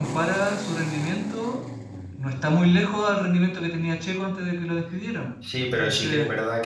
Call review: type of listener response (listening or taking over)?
taking over